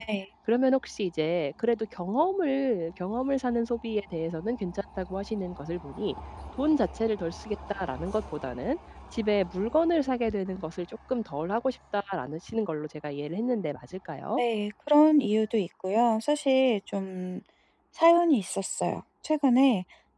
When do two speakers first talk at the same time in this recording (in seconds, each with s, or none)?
none